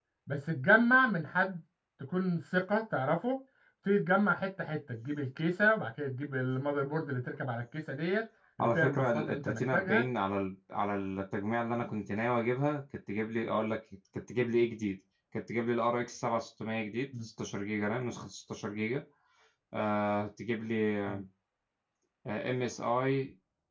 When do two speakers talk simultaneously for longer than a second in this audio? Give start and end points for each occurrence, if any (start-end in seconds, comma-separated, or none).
8.6-10.0